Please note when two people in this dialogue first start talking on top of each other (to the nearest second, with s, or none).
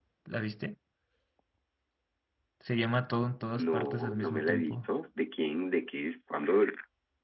4 s